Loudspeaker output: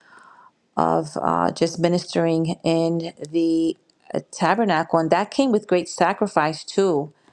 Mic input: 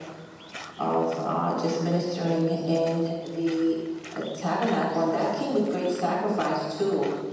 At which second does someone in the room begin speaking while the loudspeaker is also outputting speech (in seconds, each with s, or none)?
none